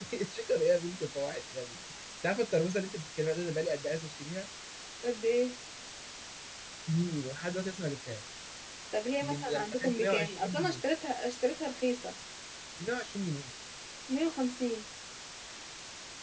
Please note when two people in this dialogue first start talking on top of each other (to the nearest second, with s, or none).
9 s